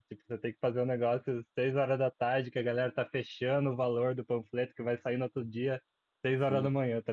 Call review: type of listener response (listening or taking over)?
listening